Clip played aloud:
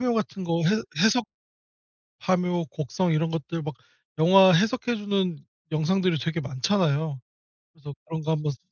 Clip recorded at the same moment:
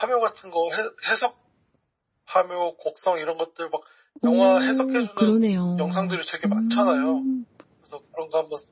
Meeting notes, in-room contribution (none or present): present